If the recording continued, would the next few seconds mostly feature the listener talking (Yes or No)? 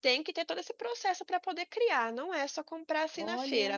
No